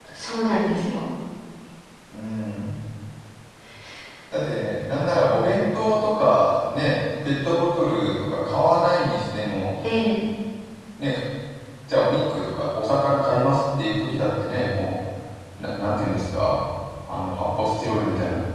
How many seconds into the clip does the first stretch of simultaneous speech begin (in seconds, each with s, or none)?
none